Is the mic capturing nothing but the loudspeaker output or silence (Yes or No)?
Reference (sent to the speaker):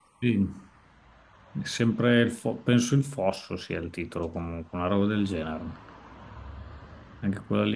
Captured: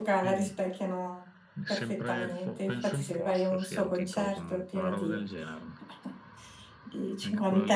No